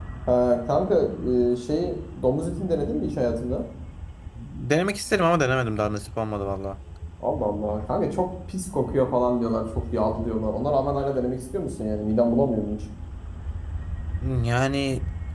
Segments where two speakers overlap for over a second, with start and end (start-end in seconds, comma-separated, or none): none